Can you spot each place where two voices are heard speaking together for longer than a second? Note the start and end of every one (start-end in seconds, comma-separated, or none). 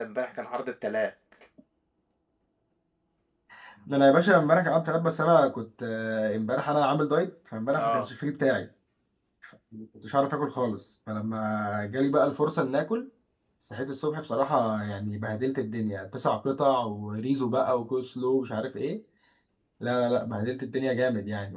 none